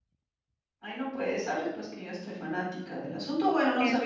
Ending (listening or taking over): listening